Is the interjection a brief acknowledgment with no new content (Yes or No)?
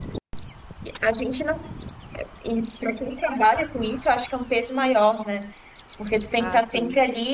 Yes